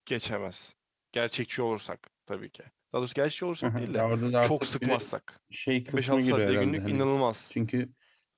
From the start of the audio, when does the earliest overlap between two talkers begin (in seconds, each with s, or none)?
3.6 s